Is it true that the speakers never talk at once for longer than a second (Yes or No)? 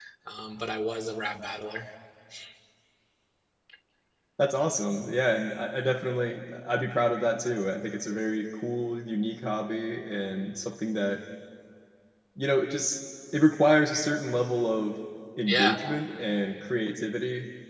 Yes